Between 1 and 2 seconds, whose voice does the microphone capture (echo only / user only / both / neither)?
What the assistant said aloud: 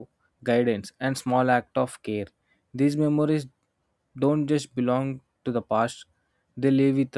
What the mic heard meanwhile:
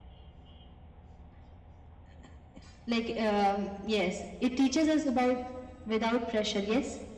neither